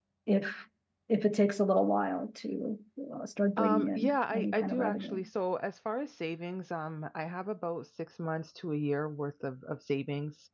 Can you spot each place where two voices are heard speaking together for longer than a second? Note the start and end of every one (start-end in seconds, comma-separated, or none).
3.6-5.2